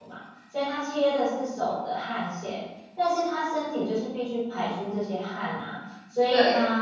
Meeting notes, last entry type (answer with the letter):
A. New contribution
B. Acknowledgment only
B